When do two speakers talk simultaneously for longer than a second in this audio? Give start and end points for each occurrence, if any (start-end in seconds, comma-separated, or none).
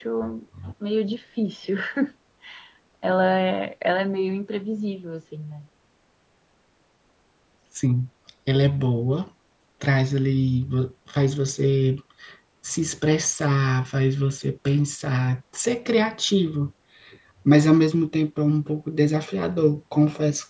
none